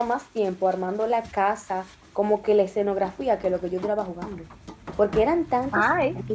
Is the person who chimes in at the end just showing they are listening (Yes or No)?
Yes